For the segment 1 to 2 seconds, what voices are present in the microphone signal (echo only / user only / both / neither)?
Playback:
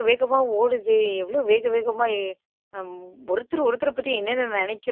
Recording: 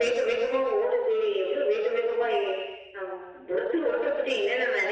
echo only